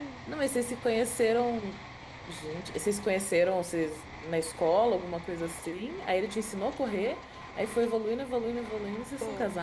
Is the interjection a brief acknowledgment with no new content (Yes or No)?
No